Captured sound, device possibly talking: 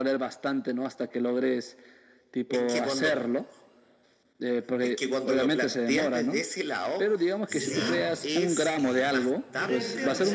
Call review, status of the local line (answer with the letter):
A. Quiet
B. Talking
B